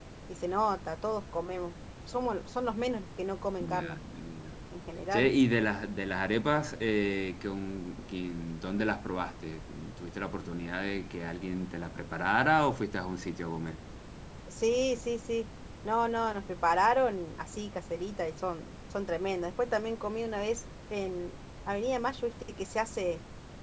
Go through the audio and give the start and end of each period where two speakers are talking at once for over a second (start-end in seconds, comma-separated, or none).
none